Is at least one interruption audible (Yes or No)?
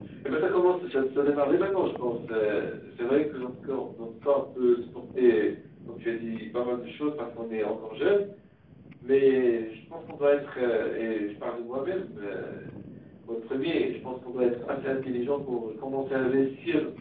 No